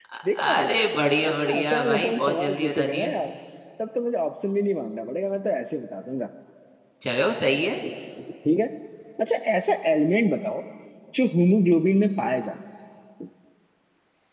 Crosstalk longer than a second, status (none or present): present